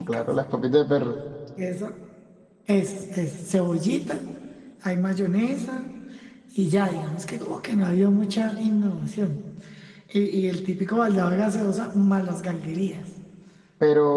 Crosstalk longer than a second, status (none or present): none